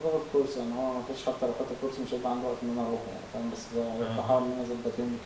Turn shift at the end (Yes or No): No